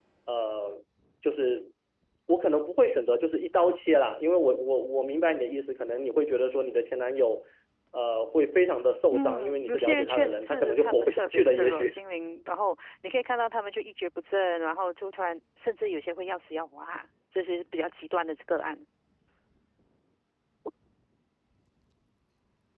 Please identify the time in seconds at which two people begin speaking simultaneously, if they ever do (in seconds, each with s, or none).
9.1 s